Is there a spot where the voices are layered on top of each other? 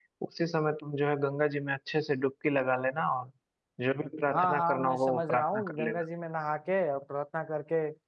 Yes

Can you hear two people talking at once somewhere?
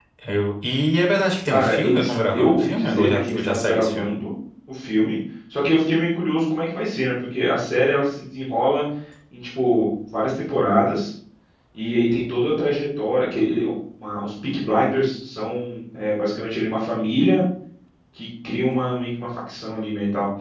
Yes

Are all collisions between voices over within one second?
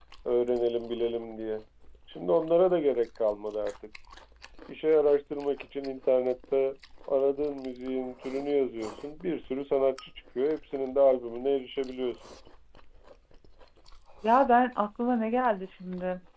Yes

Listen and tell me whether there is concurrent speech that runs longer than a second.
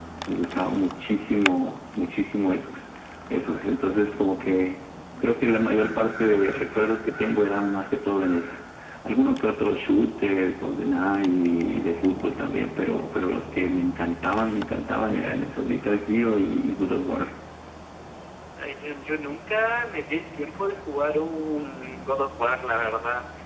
No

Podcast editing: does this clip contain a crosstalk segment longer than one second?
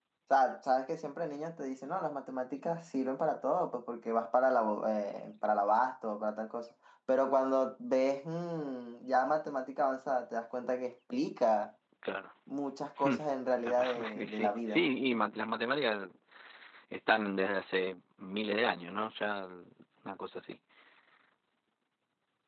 Yes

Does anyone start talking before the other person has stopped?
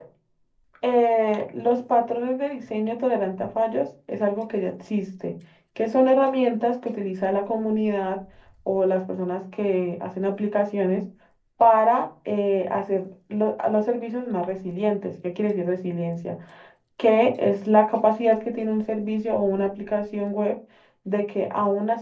No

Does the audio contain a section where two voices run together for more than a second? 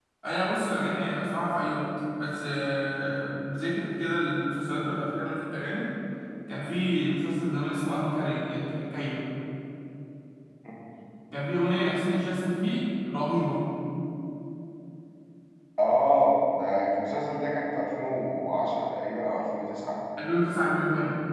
No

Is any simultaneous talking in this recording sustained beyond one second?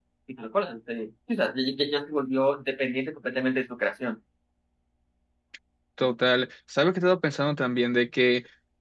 No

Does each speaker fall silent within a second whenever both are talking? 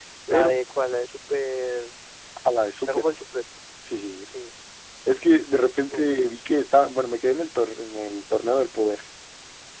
Yes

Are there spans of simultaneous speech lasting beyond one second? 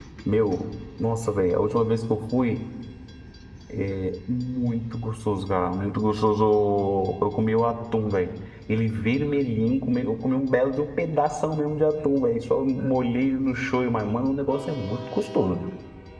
No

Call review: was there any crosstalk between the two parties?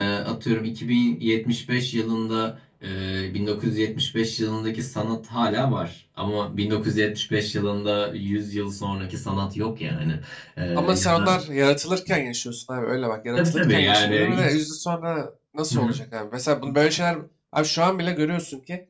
Yes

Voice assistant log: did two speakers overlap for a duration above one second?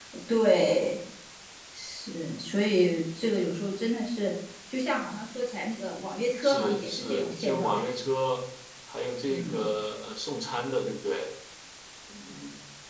Yes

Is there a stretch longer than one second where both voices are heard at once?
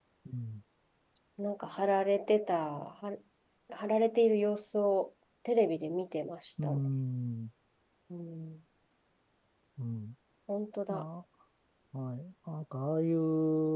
No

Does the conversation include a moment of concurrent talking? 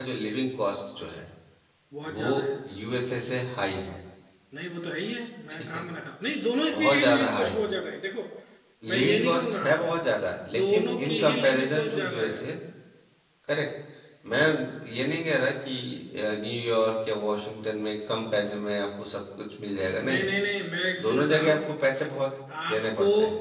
Yes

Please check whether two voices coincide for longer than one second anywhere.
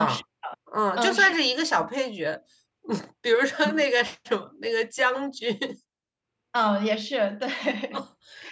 No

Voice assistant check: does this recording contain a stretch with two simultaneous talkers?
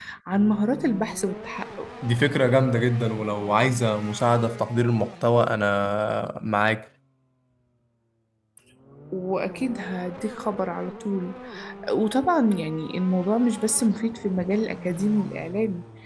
No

